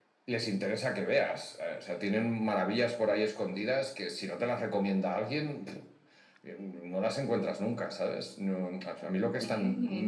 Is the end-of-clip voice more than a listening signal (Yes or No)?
No